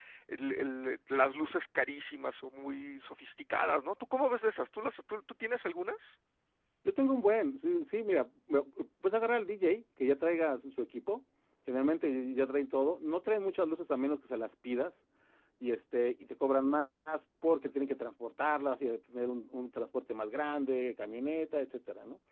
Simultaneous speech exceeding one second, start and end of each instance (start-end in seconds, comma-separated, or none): none